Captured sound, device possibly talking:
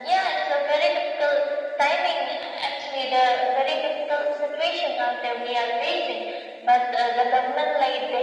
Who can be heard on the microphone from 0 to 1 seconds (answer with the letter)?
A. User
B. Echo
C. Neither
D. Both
B